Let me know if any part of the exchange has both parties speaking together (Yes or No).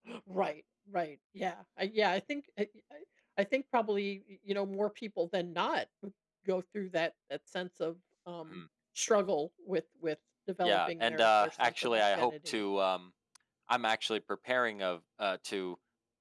Yes